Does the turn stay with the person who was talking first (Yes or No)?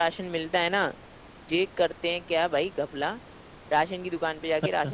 Yes